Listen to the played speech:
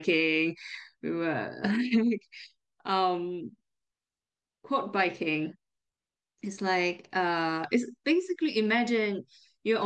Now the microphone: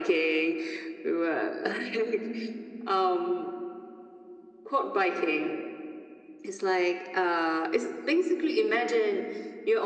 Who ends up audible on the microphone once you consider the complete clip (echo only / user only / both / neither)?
echo only